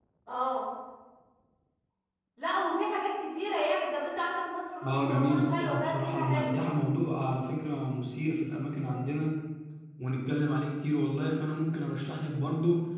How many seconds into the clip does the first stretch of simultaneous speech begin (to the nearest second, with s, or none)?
5 s